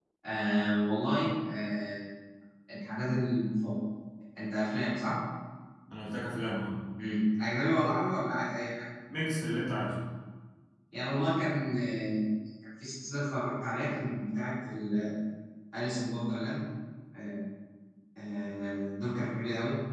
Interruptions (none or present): none